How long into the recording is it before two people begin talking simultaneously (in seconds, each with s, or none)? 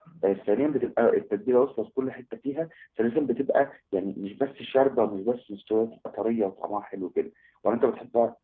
none